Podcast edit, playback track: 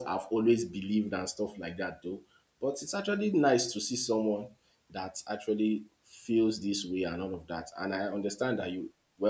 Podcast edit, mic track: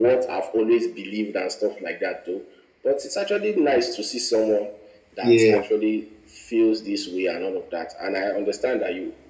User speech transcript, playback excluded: Yeah,

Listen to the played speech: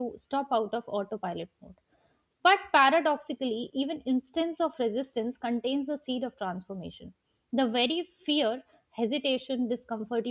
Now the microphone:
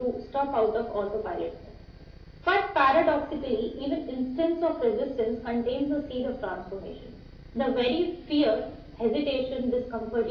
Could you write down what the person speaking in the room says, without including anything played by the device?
none

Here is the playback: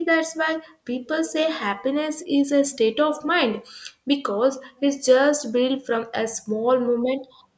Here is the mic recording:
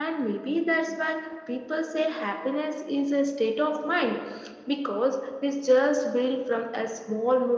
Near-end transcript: none

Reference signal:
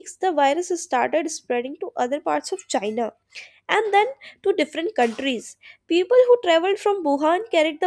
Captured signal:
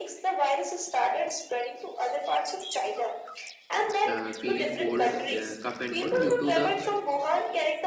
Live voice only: uh, feeling cold, uh, cough and cold due to the

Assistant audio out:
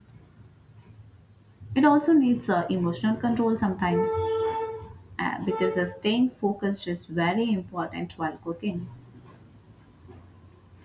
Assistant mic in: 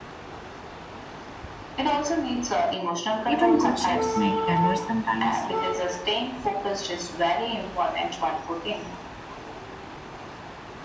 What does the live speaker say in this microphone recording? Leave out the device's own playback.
Even good chefs make errors sometimes.

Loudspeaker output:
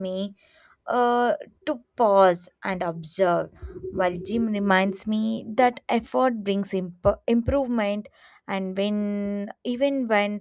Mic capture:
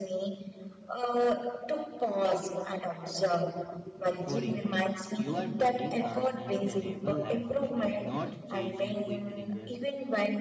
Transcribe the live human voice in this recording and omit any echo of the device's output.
for years you are building a sustainable lifestyle not chasing quick result

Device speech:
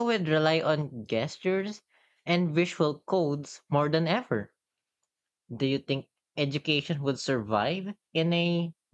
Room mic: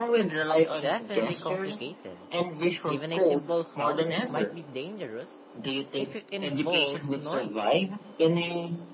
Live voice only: Definitely complicated. Even a simple hug might be dangerous If it involves noise,

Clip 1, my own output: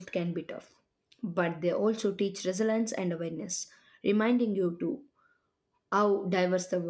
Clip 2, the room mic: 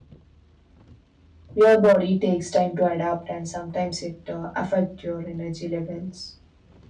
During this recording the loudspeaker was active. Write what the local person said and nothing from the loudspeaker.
Your body takes time to adapt, and sometimes it uh, affect your energy levels.

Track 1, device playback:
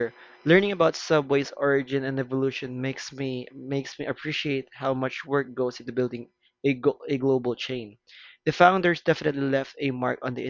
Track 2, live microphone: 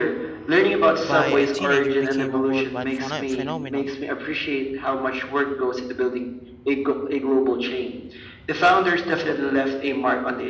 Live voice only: by a teenager became a worldwide pheno- phenomenon.

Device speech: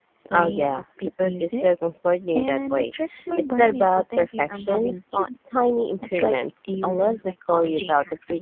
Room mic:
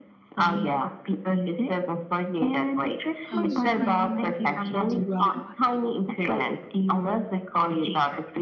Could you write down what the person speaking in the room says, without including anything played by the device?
Oh, superhuman productivity robot.

